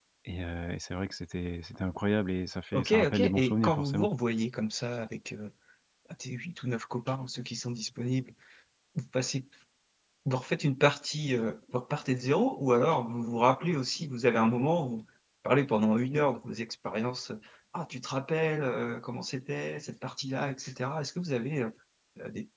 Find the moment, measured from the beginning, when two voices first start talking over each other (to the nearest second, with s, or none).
3 s